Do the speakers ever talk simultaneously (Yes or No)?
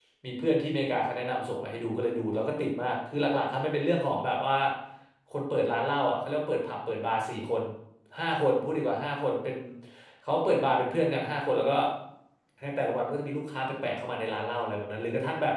No